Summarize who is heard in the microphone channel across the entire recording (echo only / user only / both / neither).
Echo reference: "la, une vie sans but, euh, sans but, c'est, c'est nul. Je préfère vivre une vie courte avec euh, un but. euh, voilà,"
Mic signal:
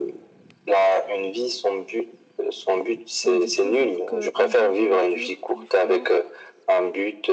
both